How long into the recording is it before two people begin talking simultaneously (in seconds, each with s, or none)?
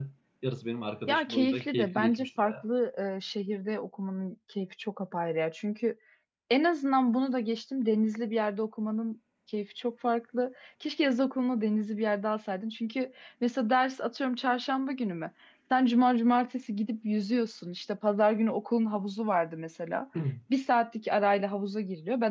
1.1 s